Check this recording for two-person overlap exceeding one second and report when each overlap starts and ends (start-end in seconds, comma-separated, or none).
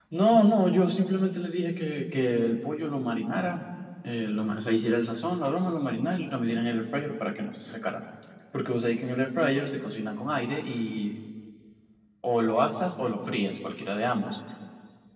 none